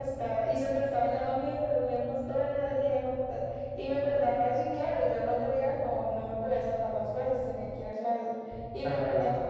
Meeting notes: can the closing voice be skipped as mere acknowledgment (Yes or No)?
Yes